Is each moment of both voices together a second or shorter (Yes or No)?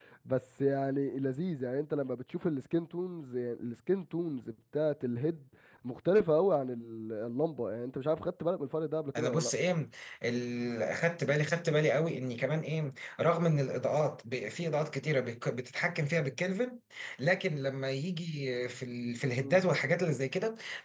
Yes